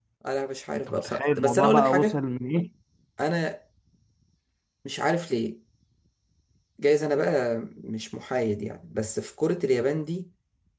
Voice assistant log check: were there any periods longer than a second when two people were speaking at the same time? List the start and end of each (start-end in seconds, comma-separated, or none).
0.9-2.2